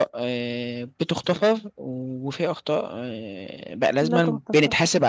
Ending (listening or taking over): listening